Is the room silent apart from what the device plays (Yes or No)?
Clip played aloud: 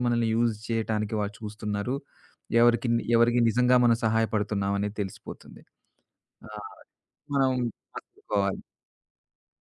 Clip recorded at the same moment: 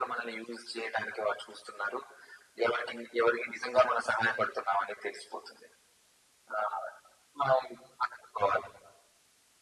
Yes